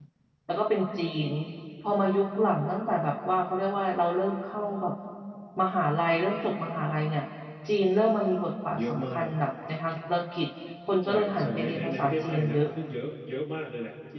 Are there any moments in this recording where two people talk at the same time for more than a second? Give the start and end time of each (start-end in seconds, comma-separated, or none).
11.0-12.7